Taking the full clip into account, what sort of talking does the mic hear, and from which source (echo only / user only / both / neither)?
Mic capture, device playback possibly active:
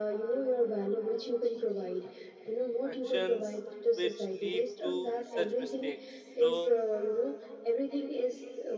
both